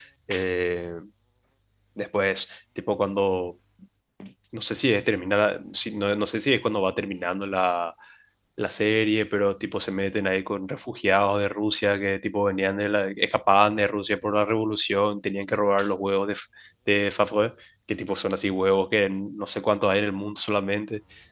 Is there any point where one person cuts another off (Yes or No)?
No